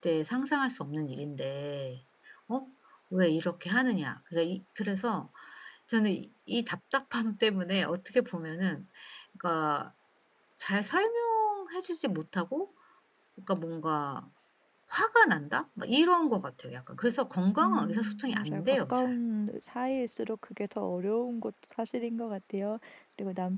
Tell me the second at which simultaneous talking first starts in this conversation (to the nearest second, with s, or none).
18 s